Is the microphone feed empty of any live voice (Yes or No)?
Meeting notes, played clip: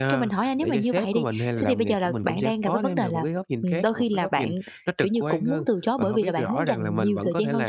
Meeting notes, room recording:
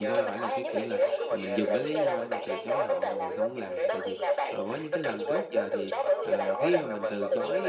No